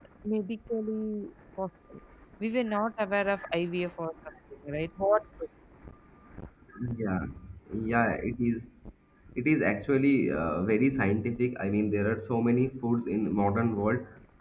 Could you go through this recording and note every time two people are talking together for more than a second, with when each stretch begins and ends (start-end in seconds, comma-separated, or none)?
none